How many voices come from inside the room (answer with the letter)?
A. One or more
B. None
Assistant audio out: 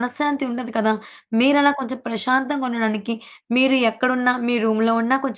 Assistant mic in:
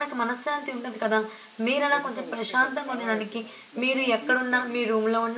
A